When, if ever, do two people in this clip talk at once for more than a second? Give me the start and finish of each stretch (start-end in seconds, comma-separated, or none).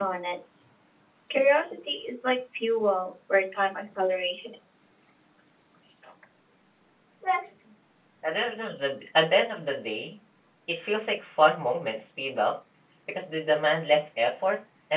none